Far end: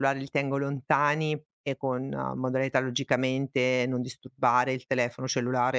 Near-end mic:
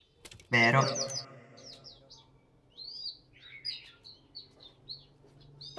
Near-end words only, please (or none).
Vero?